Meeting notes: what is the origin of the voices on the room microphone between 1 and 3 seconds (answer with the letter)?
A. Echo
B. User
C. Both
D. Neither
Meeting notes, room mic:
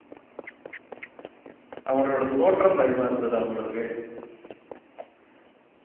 B